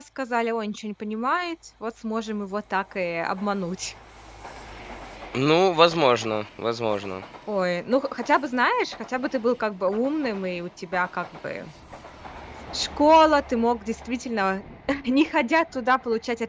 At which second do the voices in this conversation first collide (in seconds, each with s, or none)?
none